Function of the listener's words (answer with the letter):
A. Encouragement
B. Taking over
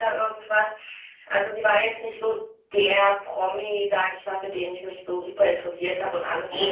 A